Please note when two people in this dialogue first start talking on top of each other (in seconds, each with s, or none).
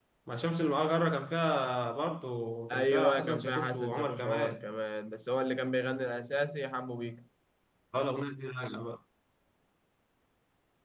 2.7 s